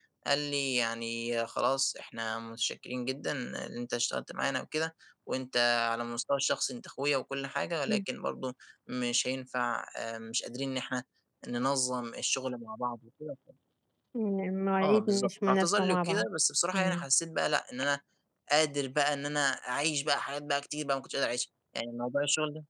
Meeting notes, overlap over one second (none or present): present